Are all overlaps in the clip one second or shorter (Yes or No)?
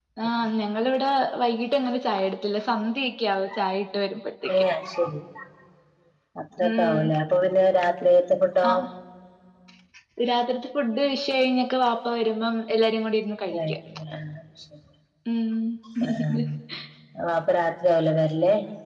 Yes